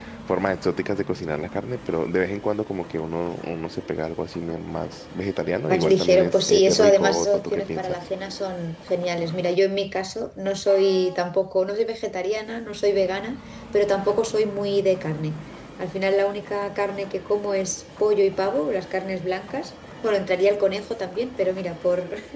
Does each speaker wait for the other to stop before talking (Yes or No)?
No